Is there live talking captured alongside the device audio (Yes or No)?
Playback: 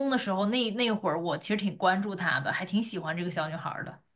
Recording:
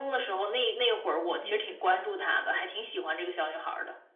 Yes